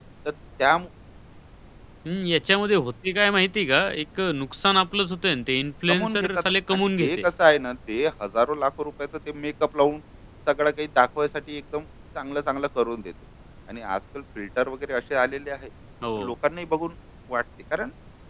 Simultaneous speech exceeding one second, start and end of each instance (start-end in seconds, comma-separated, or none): 5.9-7.2